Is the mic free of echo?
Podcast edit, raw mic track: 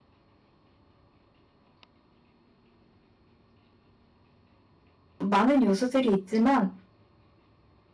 Yes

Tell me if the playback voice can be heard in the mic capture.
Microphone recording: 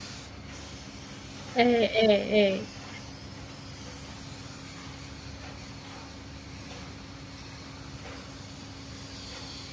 No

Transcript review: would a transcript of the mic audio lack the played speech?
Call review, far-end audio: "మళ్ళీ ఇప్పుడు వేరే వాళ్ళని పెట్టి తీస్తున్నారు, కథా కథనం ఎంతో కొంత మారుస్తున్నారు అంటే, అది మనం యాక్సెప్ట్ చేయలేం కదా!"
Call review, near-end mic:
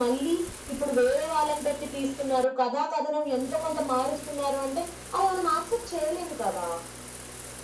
No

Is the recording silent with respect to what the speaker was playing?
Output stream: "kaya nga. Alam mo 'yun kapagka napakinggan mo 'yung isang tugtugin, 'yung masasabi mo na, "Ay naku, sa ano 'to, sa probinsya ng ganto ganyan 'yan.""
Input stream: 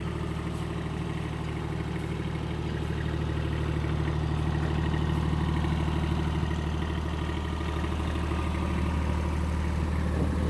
Yes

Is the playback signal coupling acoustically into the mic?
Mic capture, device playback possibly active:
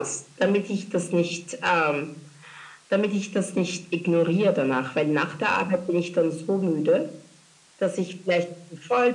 Yes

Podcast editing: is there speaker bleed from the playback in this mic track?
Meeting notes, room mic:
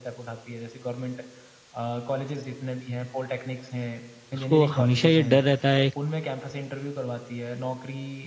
Yes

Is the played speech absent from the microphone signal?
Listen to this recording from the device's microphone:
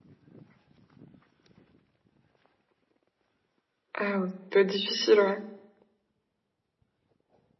Yes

